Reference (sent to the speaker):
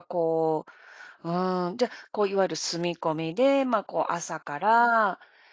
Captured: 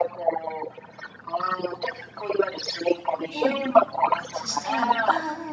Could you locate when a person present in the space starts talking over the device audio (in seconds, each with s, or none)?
3.3 s